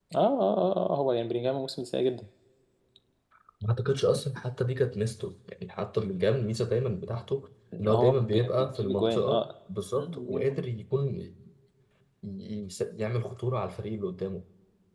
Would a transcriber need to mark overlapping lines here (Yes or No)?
Yes